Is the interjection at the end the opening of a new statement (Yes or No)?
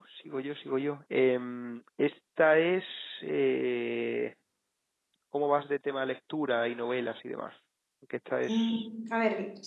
Yes